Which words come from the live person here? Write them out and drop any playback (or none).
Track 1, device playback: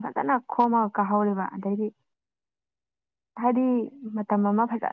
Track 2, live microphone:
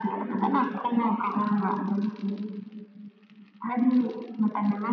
none